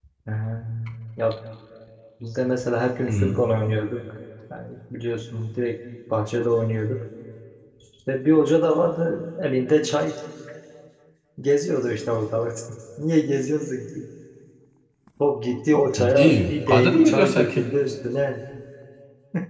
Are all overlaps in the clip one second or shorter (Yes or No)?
No